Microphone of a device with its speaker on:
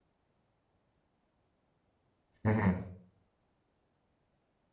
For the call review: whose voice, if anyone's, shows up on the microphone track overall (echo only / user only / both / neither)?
user only